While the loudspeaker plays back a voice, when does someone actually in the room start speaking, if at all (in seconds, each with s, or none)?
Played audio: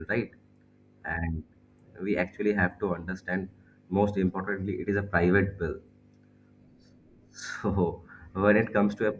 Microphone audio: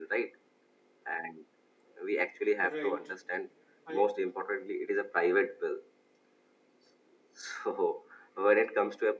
2.6 s